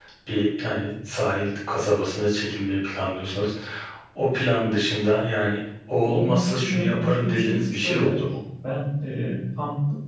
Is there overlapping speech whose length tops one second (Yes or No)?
Yes